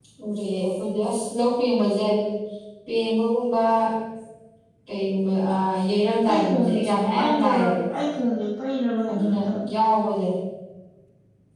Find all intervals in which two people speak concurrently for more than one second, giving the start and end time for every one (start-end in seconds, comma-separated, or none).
6.3-7.7